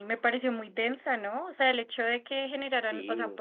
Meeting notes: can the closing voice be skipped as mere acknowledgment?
Yes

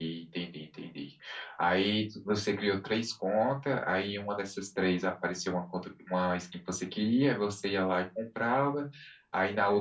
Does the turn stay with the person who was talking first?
Yes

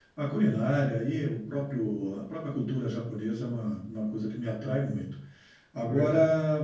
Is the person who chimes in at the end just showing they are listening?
Yes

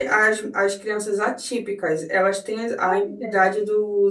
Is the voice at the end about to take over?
No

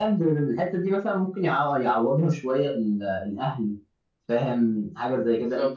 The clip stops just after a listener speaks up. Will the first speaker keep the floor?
Yes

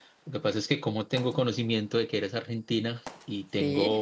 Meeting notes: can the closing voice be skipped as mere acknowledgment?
Yes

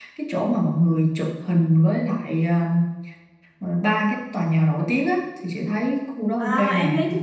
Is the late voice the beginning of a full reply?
Yes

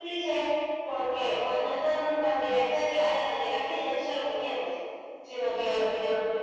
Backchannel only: Yes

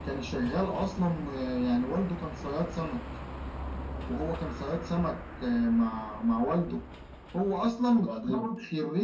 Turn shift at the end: No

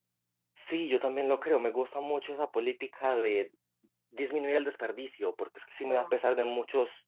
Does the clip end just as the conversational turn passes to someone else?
No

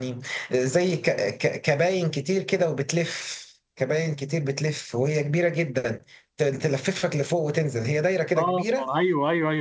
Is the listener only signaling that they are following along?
No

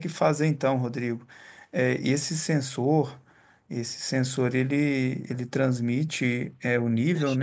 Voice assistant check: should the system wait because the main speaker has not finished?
Yes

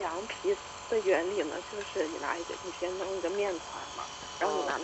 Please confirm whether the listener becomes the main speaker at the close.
No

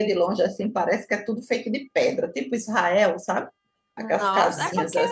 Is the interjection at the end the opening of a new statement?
Yes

